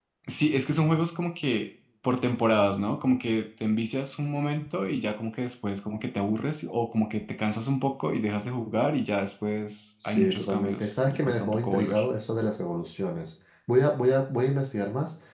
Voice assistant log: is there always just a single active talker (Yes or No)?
No